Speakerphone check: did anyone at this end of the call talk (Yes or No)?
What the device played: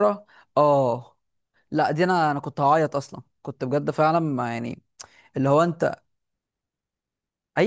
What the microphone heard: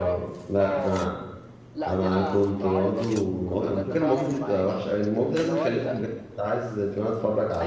Yes